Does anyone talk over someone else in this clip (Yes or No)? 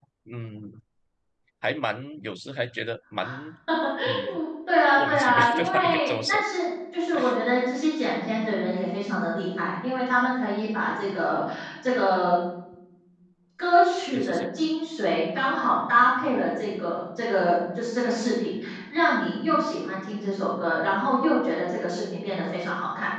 Yes